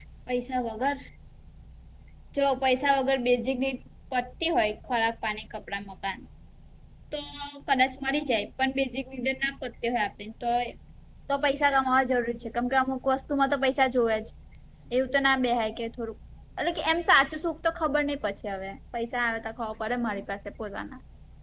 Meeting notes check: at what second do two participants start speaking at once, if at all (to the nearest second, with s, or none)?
none